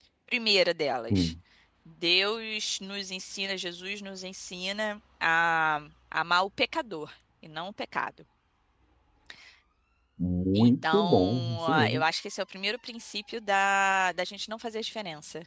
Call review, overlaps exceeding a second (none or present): present